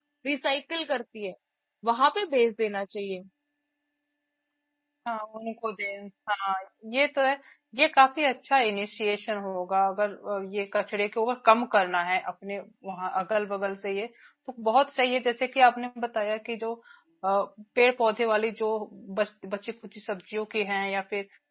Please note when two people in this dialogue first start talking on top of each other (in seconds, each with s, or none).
none